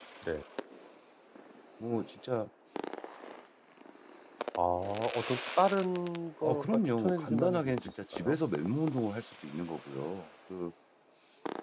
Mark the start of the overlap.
6 s

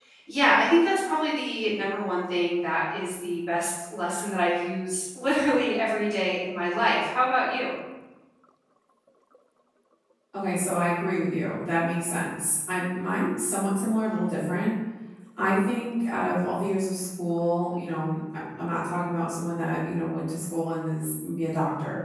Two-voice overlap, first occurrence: none

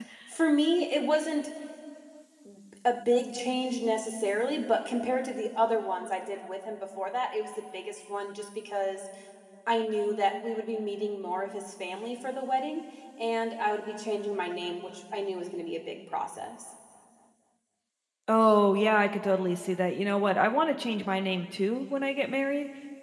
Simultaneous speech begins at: none

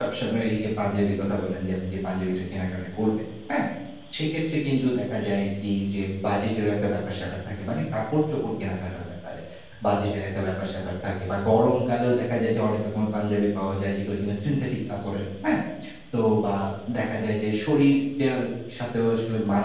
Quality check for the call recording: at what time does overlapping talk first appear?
none

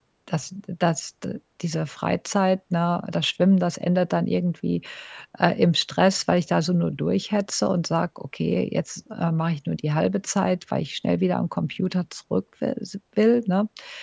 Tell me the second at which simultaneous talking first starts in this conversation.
none

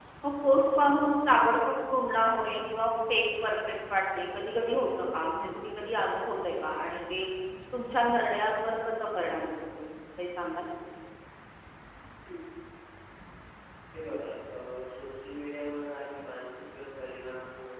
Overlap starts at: none

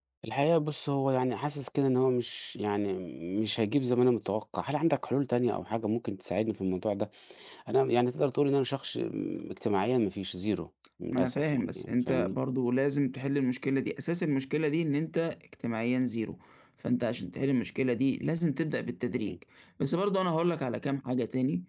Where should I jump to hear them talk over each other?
11 s

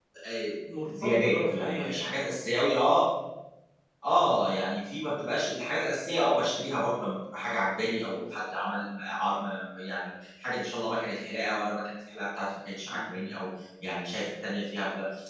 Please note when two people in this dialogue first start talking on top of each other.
1 s

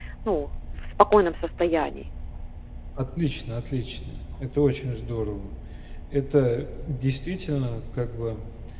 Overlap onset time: none

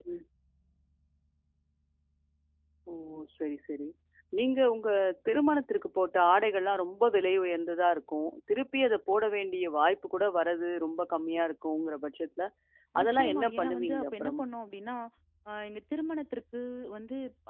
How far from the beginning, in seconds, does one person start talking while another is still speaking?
13 s

